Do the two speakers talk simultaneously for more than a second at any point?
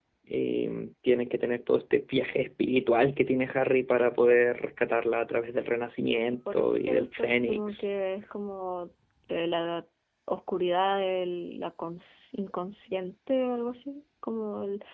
Yes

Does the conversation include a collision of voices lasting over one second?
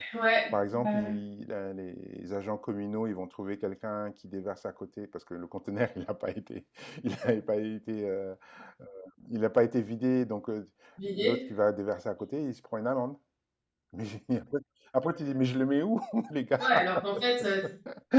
No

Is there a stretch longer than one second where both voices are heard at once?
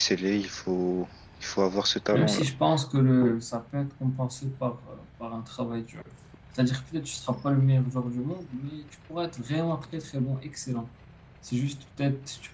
No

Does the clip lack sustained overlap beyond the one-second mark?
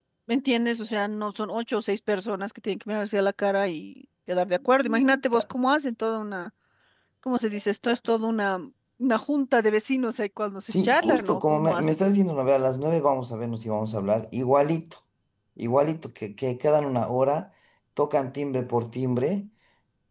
No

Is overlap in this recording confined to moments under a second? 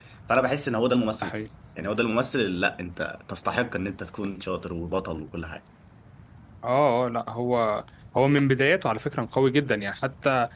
Yes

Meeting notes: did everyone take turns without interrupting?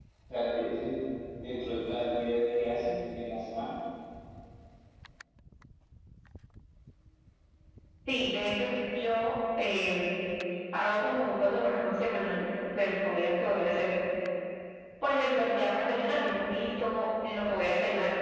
Yes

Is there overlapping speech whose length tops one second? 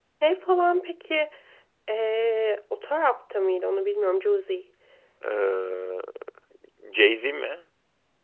No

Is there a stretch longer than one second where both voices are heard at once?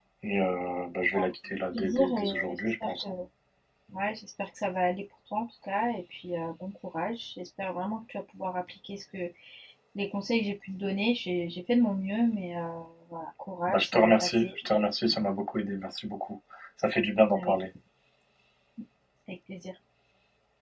Yes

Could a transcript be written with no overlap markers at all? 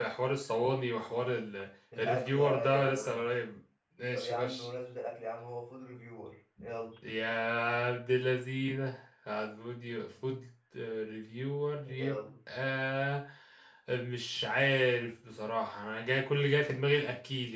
No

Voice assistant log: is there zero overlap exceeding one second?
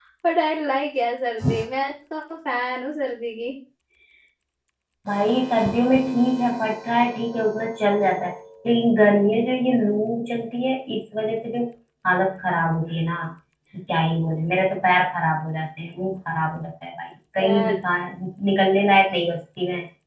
Yes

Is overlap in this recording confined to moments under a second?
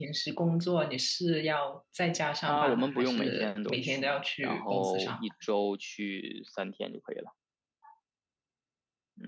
No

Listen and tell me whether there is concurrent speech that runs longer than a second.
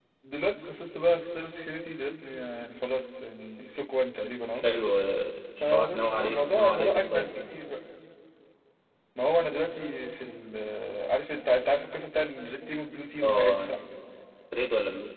Yes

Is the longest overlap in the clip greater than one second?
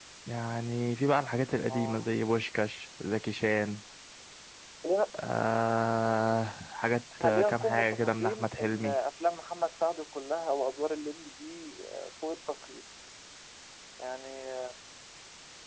Yes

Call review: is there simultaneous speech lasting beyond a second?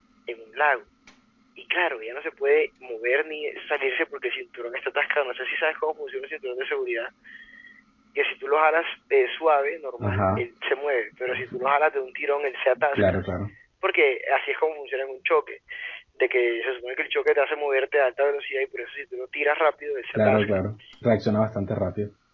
No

